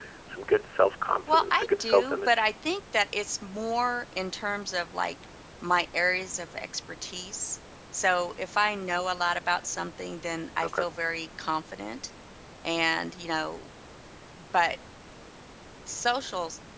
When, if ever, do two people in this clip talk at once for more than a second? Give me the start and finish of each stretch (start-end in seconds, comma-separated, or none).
1.3-2.5